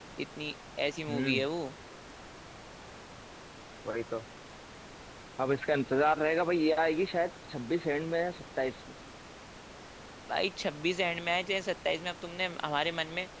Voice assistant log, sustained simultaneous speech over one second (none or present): none